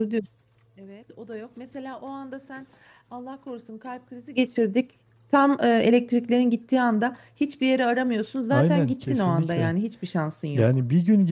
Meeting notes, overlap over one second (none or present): present